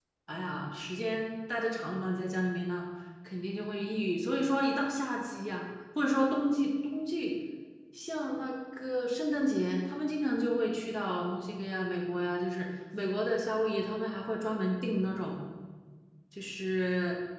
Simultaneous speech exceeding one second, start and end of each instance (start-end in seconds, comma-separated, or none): none